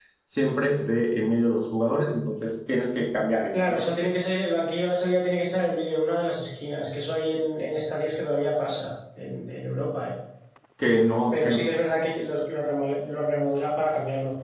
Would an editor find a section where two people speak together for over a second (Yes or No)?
No